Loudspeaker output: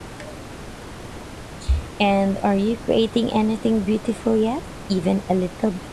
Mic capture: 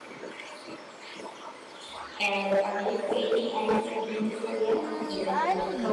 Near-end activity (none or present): present